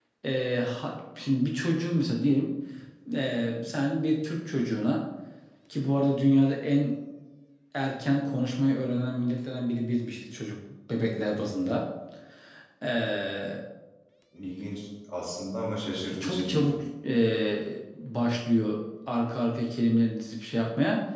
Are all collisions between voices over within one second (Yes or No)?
Yes